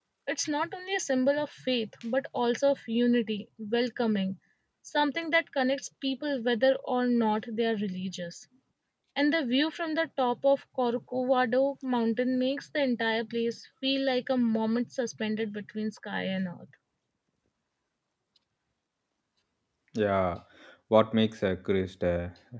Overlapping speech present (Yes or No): No